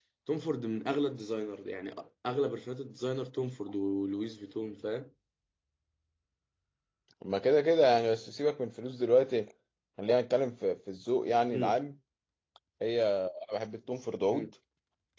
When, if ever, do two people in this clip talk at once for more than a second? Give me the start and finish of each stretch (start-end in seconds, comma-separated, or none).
none